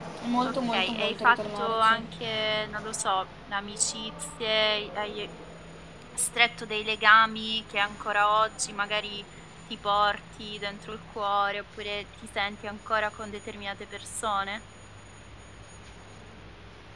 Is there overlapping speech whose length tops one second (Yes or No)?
Yes